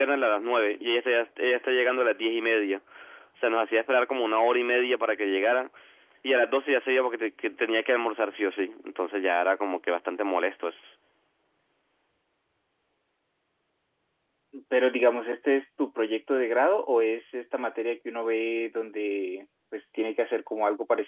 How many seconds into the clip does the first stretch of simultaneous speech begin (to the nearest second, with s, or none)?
none